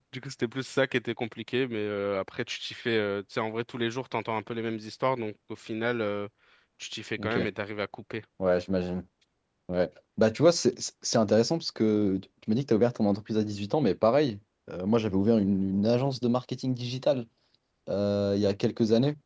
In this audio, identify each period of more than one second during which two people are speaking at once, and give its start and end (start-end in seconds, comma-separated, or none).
none